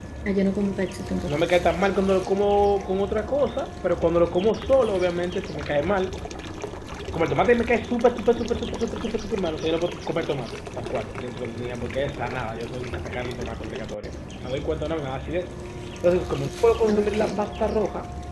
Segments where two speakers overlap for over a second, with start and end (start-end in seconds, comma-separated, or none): none